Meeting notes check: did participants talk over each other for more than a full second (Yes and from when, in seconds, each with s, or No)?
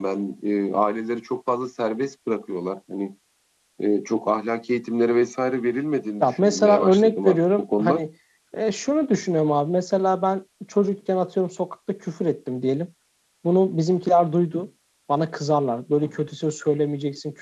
Yes, from 6.2 s